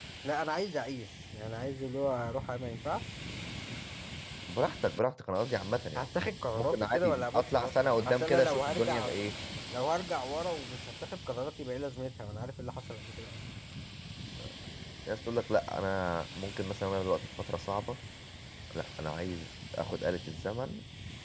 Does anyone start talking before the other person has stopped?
Yes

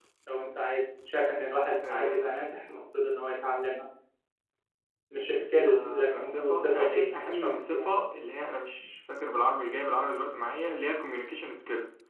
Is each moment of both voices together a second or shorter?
No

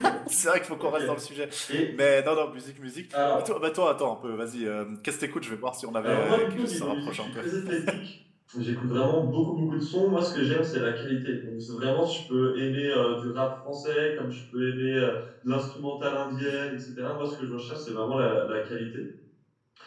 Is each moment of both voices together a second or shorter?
No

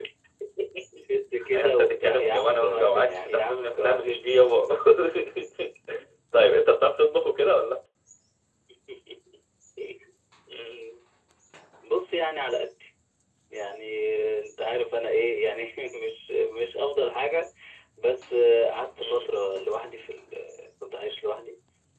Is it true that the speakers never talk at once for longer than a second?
No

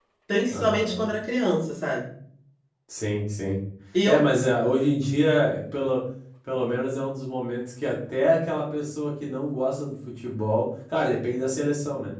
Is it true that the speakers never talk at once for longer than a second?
Yes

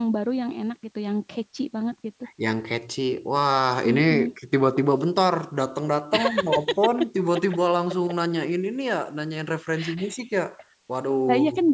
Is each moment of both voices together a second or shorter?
Yes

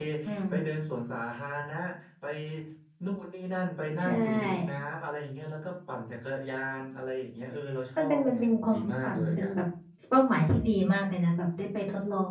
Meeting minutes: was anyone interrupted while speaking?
Yes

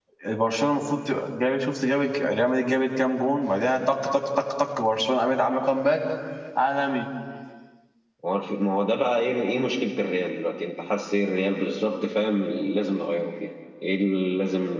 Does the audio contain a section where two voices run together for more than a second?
No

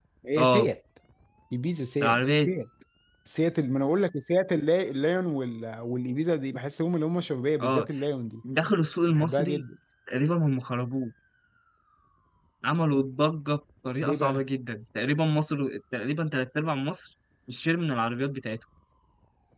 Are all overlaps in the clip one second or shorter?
Yes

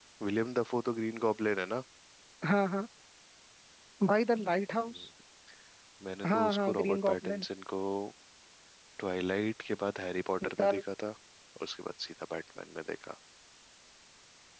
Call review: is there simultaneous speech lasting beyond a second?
Yes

